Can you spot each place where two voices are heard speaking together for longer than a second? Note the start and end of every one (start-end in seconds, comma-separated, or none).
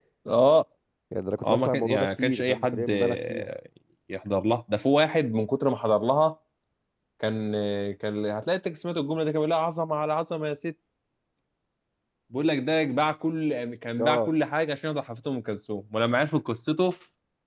1.4-3.5